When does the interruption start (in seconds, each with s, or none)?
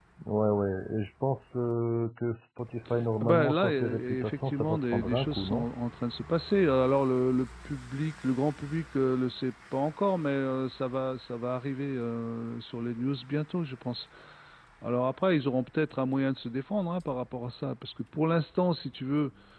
3.2 s